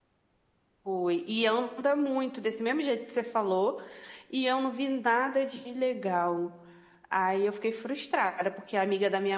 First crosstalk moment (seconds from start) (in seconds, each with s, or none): none